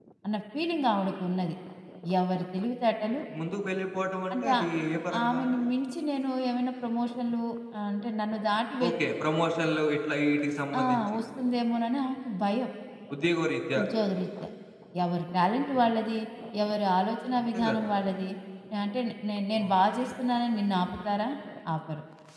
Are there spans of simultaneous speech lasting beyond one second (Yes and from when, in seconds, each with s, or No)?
No